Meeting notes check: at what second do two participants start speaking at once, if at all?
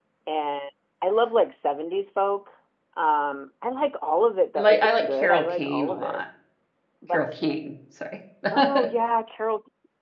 4.6 s

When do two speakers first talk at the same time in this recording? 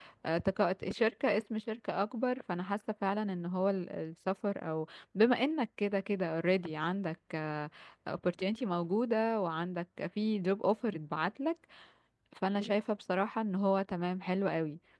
none

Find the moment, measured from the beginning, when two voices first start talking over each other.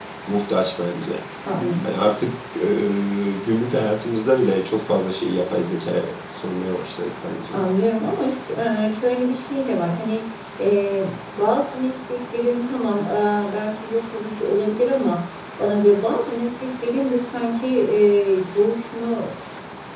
none

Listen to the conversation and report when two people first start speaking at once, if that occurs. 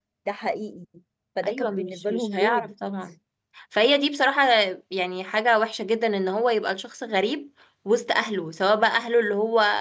1.4 s

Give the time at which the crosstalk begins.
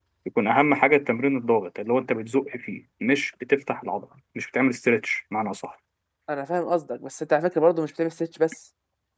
none

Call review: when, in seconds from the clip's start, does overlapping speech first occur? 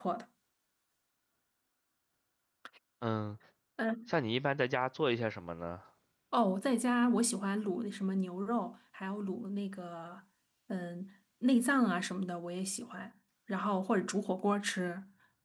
none

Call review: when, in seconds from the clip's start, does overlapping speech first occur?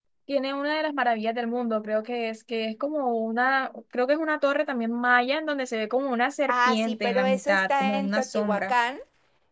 6.5 s

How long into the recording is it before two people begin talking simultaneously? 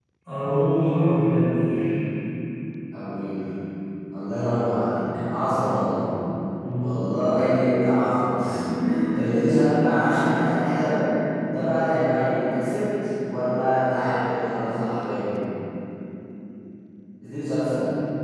none

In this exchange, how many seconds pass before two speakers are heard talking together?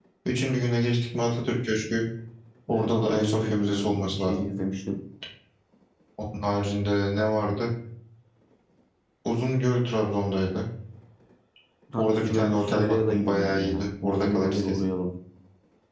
2.7 s

